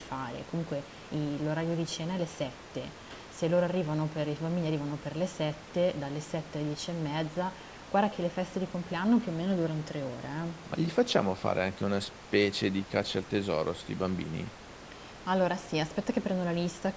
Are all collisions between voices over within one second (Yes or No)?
Yes